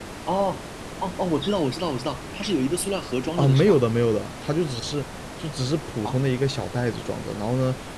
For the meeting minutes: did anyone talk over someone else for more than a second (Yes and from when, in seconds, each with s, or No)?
No